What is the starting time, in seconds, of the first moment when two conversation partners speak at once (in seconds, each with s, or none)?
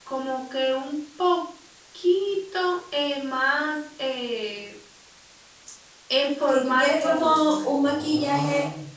6.4 s